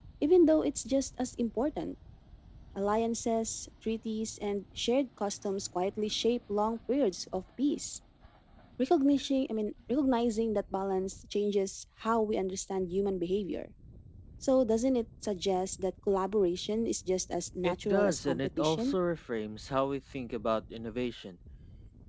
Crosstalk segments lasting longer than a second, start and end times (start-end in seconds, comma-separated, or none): 17.6-18.9